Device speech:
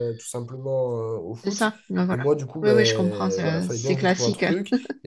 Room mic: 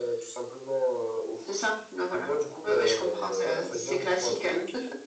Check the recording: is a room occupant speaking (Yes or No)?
No